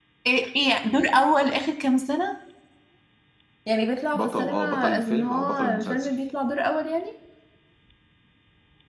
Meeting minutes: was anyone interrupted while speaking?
Yes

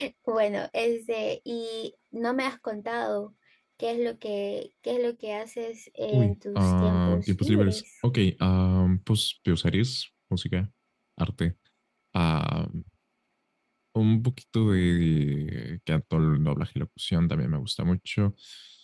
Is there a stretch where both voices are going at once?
Yes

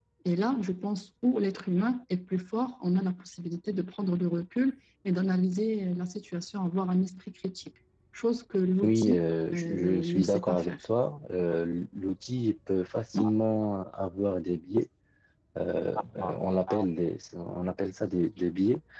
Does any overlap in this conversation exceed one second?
Yes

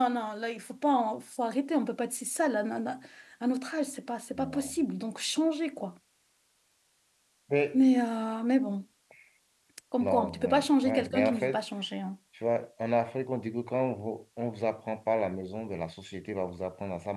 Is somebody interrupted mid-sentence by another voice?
Yes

